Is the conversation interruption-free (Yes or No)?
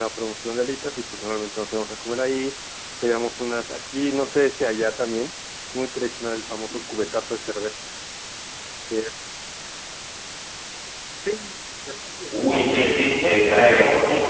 No